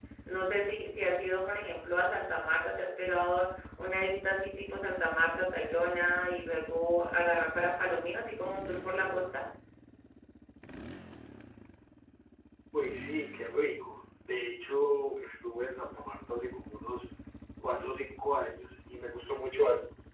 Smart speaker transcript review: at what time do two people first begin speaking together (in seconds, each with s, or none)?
none